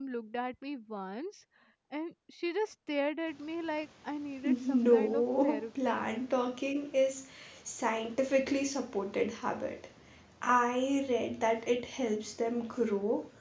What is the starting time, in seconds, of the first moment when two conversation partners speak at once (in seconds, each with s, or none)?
4.4 s